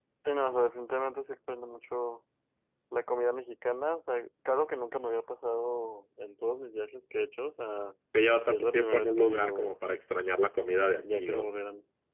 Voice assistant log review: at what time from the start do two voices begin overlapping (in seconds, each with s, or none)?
8.5 s